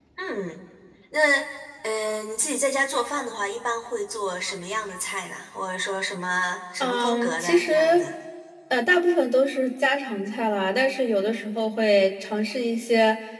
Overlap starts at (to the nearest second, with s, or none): 7 s